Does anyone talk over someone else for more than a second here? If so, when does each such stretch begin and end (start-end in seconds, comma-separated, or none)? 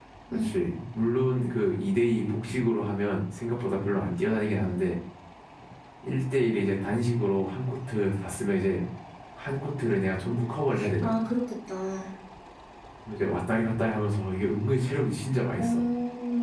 none